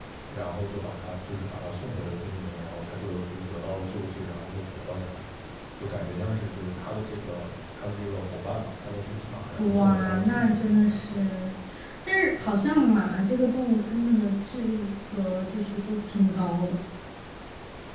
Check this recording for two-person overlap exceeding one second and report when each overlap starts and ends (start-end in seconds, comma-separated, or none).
9.6-11.2